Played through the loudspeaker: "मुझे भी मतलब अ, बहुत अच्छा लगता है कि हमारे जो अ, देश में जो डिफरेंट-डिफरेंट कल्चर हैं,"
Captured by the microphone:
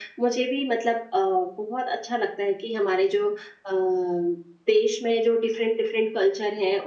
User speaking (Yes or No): No